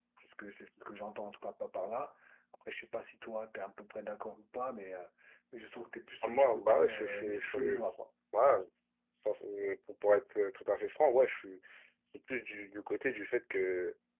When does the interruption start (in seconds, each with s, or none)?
6.2 s